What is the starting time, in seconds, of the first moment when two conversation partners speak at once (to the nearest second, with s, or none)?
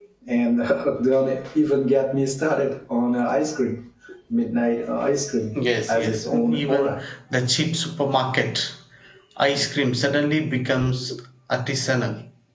6 s